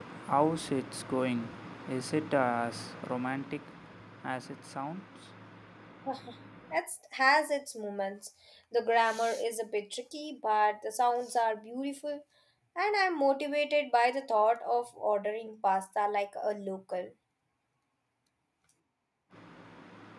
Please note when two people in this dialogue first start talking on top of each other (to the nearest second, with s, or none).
none